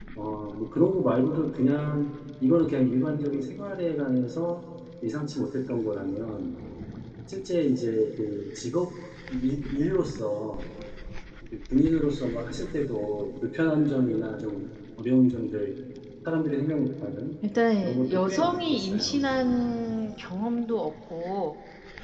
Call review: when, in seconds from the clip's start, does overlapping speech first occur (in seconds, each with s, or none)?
17.8 s